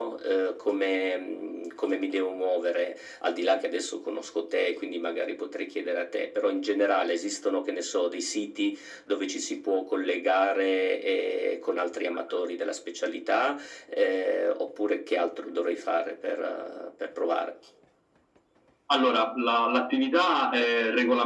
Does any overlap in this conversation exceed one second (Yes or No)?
No